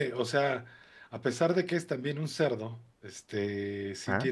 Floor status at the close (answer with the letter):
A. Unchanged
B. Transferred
A